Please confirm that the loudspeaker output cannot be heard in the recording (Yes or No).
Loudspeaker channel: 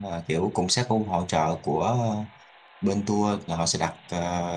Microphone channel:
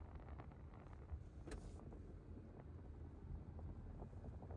Yes